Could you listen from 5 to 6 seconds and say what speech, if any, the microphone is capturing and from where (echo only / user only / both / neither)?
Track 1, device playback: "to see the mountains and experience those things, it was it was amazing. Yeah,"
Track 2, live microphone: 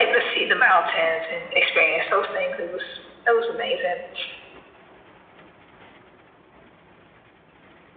neither